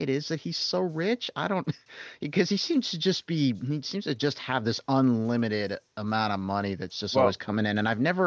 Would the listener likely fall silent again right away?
Yes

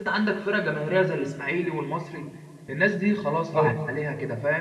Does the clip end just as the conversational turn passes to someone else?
No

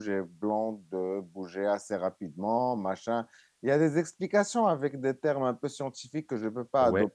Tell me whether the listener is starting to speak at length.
No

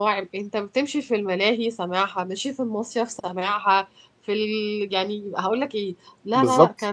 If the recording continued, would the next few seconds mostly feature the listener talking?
No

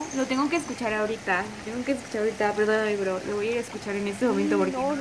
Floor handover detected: Yes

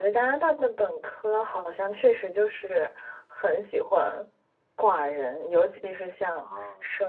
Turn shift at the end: No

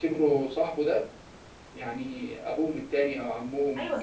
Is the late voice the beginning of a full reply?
Yes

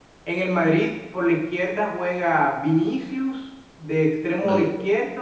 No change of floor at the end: Yes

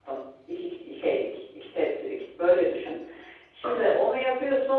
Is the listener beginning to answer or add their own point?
No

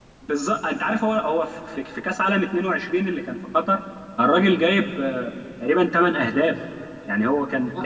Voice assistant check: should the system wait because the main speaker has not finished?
Yes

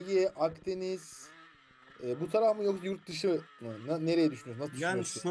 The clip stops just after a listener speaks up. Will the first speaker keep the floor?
No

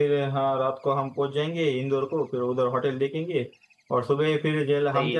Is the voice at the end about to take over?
No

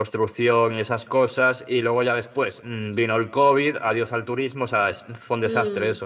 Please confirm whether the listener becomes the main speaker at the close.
Yes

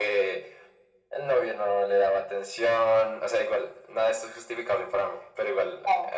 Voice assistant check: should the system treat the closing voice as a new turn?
No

